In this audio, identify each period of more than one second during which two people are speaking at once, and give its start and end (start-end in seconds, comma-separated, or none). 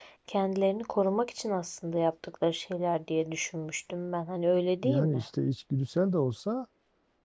none